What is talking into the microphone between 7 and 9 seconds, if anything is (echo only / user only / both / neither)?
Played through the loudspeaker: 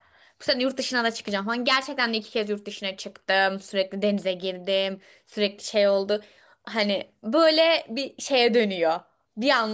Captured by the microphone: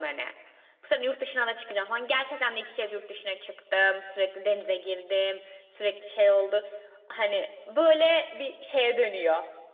echo only